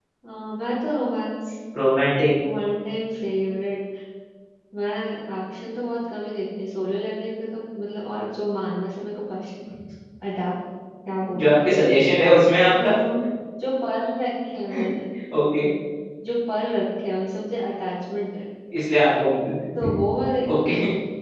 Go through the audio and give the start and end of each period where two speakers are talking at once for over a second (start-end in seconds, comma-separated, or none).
none